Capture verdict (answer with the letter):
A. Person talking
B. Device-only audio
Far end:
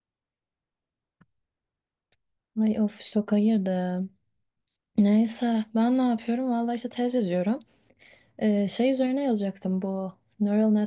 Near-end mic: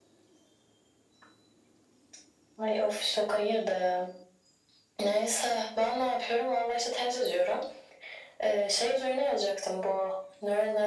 B